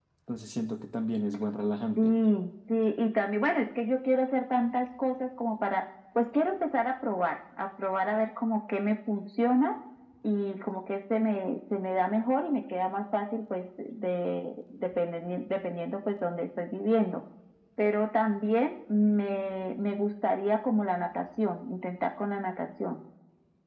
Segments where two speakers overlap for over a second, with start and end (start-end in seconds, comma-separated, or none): none